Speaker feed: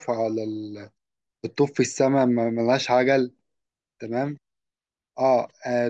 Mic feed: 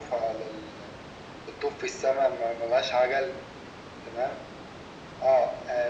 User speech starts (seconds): none

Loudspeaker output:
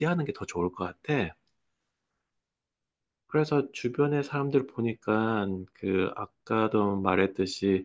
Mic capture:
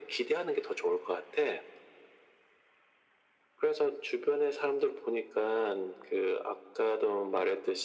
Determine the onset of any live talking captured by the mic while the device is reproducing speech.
none

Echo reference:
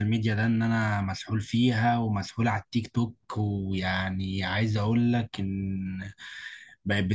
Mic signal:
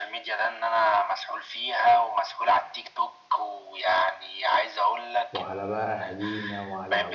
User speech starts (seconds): 5.3 s

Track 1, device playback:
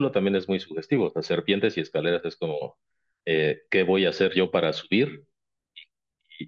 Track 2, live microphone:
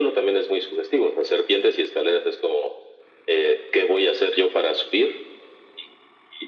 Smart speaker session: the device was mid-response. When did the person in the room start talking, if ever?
none

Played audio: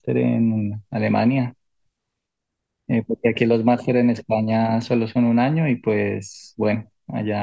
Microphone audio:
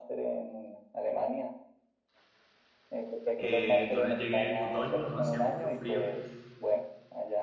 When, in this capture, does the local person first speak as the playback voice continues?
3.4 s

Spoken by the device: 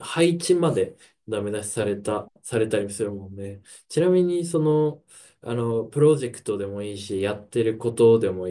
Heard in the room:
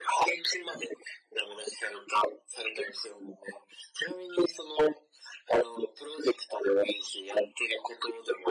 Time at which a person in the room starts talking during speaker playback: none

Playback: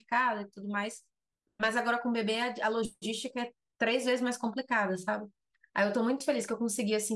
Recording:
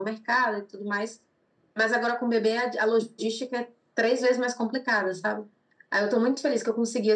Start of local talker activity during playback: none

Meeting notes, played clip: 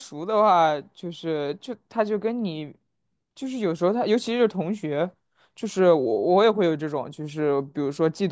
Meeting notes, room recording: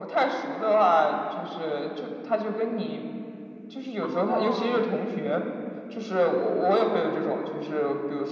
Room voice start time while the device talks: 4.0 s

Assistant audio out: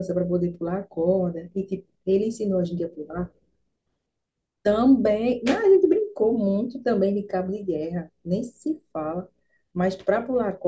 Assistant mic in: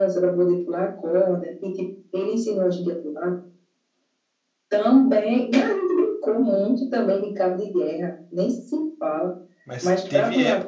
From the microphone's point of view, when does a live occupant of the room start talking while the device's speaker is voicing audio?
9.6 s

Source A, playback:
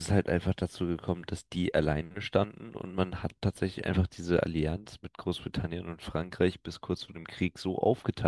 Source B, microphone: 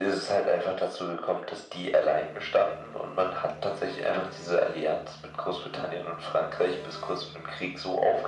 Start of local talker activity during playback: none

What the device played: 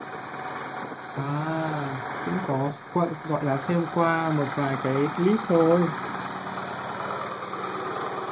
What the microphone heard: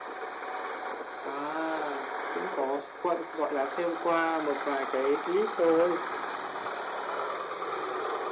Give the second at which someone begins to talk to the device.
none

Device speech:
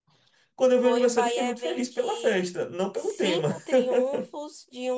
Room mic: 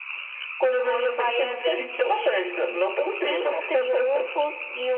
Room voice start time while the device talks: none

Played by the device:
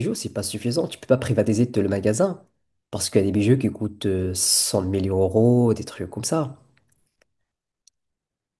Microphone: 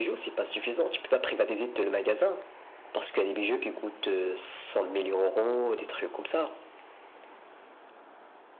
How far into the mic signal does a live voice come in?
none

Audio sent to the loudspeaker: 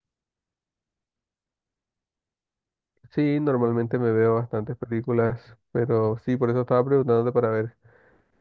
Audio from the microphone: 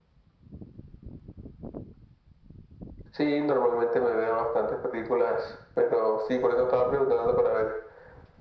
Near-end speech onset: none

